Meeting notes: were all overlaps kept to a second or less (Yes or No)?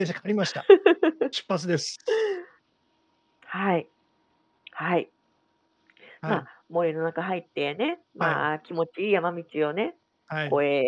Yes